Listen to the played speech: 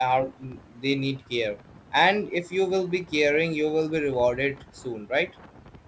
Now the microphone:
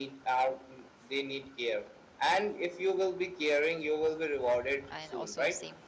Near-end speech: present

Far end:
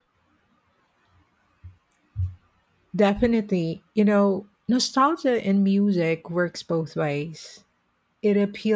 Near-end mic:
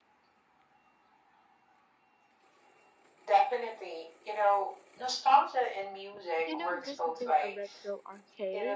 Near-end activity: present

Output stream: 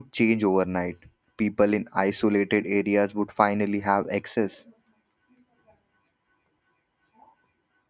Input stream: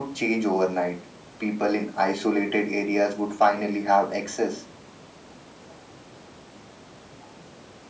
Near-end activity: none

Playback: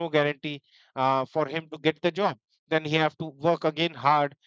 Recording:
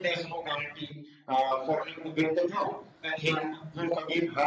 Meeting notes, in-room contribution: none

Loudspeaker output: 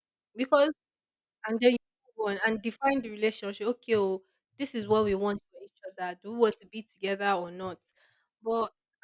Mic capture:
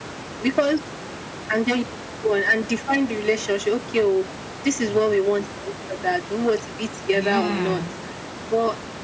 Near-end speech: present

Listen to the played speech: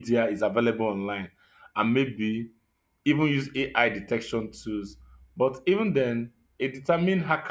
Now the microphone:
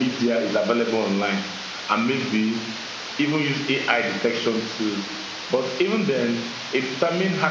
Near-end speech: none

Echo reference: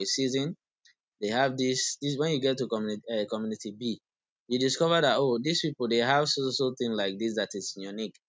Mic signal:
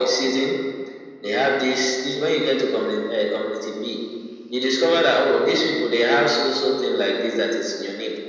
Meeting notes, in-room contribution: none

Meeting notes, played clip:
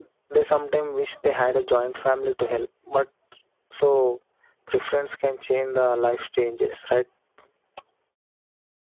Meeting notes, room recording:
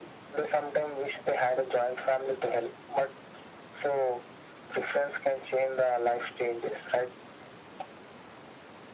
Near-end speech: none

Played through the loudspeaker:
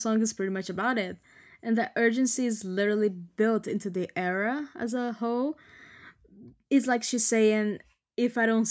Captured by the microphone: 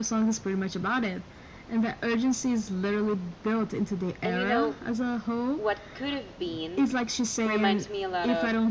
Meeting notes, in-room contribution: present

